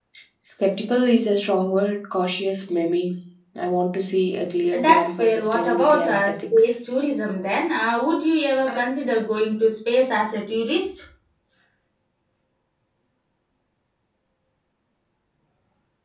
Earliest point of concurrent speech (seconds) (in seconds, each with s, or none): 4.7 s